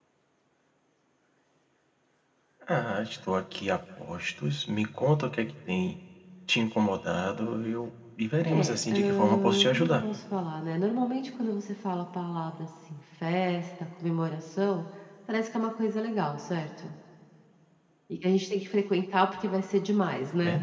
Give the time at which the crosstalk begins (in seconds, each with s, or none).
8.4 s